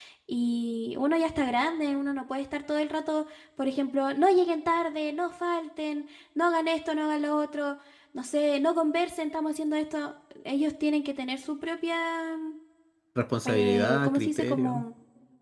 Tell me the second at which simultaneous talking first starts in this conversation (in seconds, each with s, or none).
13.5 s